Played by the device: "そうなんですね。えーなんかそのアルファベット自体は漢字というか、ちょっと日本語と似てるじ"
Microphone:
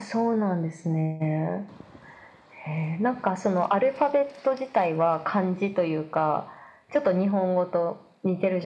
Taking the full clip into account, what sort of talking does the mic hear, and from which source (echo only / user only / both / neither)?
echo only